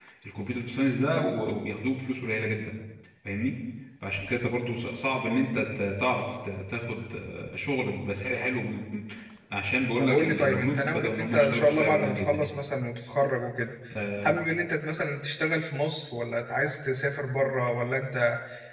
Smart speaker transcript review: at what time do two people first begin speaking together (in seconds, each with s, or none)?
10.0 s